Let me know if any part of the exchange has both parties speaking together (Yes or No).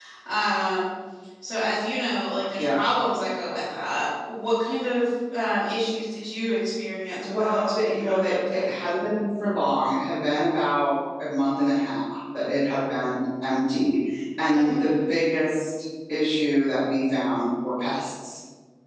Yes